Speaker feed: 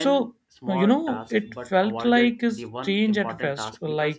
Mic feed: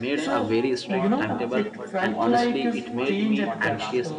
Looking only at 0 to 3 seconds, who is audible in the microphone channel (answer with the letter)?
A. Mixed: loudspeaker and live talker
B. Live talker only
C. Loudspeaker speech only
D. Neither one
A